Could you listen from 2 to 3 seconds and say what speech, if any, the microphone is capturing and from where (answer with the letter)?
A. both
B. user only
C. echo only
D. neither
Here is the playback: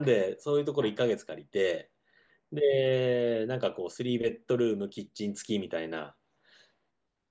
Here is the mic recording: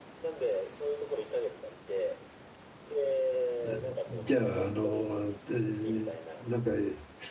C